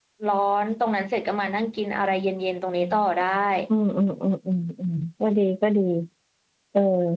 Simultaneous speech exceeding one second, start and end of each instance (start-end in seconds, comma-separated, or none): none